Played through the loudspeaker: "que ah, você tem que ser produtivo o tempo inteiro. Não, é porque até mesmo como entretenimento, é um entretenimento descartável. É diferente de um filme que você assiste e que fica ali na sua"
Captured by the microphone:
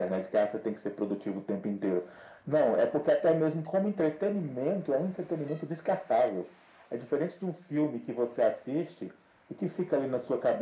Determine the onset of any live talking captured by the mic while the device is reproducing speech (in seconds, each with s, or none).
none